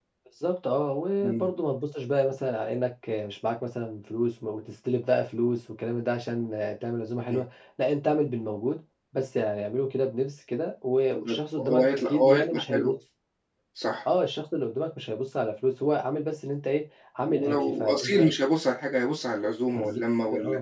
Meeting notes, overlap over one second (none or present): present